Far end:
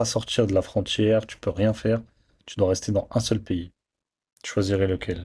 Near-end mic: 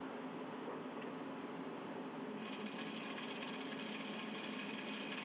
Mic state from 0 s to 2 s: neither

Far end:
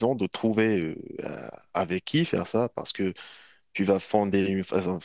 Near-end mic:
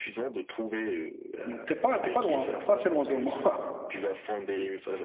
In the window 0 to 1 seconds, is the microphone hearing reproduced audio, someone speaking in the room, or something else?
echo only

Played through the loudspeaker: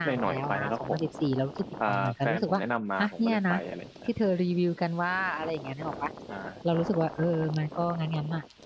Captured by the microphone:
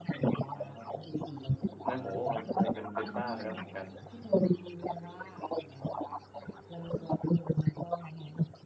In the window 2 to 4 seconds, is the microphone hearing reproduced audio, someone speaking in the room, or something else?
both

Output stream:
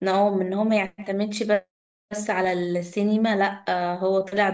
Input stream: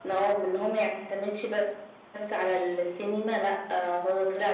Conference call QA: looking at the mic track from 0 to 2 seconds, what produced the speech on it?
echo only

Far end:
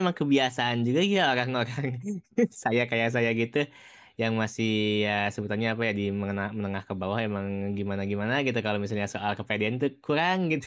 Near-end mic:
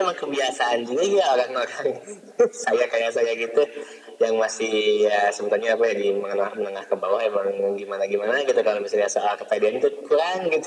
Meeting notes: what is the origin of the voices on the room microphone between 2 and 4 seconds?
echo only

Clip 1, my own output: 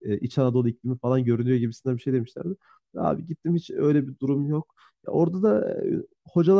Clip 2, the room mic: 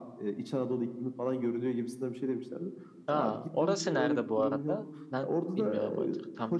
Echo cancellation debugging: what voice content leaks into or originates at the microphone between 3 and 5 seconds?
both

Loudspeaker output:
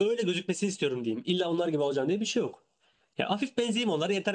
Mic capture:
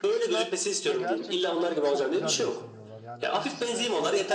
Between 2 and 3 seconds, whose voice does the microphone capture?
both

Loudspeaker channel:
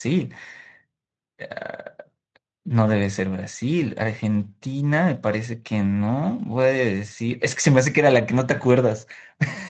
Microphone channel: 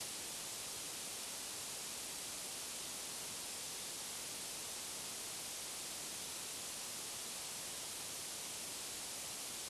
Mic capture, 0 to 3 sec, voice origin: neither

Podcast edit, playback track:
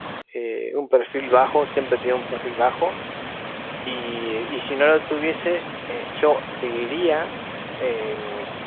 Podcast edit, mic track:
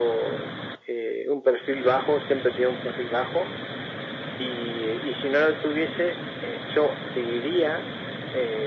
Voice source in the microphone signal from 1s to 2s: echo only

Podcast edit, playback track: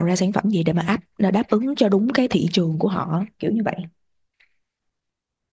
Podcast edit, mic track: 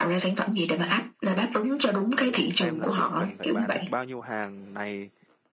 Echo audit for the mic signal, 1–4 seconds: both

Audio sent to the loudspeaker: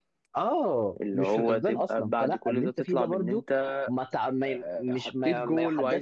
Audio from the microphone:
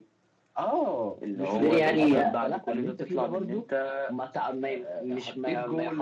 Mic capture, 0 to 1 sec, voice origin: echo only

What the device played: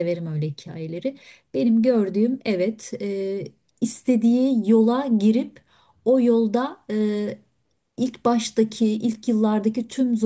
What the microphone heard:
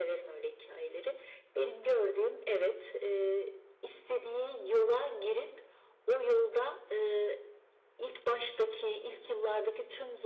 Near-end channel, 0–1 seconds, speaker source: echo only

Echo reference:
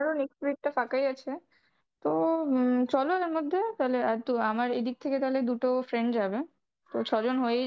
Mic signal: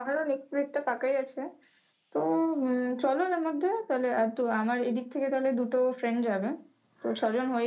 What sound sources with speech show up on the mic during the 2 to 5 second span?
echo only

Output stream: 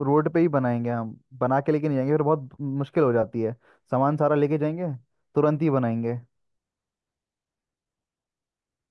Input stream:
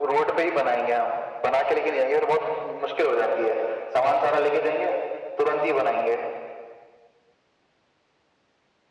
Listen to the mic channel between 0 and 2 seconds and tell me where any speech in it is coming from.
echo only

